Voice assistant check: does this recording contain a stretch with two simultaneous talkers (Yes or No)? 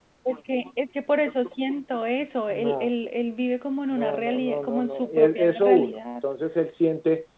Yes